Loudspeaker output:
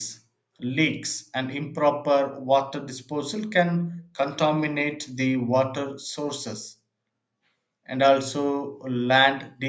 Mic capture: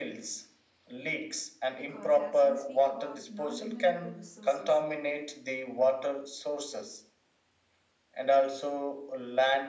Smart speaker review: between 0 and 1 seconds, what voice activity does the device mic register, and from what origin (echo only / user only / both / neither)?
echo only